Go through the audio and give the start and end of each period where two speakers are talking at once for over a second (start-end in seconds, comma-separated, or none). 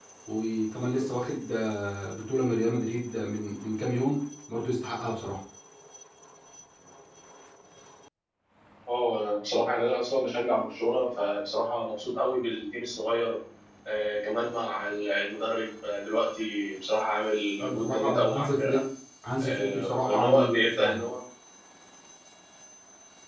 17.6-18.8, 19.4-21.0